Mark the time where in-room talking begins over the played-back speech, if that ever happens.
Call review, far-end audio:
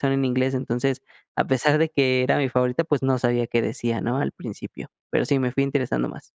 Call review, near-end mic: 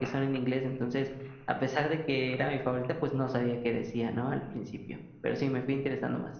none

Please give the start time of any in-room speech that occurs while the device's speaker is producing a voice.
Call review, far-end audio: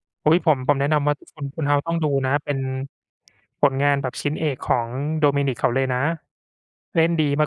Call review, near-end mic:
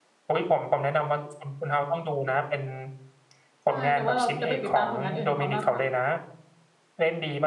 4 s

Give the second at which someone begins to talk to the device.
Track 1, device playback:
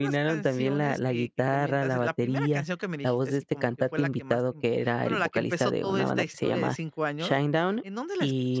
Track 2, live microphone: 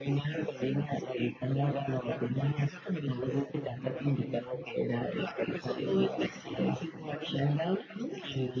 none

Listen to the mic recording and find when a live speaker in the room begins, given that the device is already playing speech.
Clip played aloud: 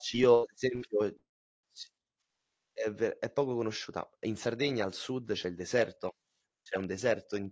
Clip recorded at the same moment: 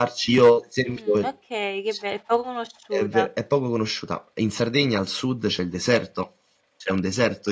1 s

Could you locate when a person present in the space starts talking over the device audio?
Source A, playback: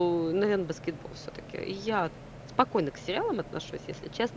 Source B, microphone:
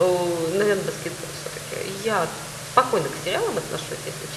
none

